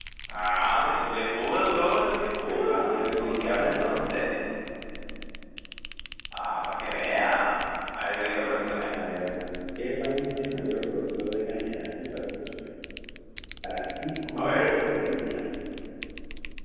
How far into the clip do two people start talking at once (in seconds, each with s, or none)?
2.5 s